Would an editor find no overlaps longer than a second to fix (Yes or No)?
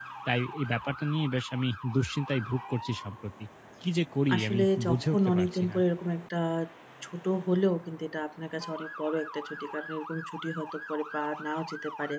No